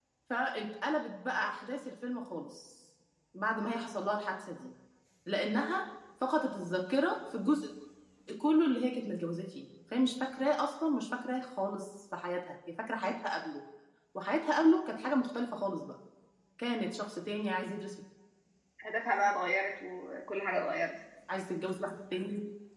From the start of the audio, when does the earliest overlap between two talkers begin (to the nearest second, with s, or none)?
none